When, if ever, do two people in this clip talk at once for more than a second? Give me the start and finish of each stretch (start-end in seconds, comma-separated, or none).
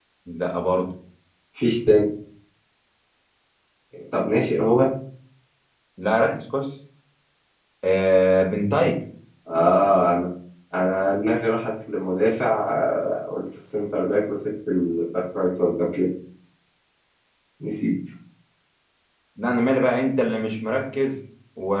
none